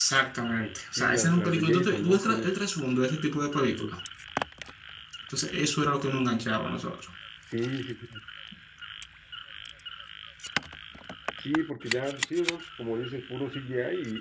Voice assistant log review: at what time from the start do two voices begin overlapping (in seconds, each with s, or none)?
0.9 s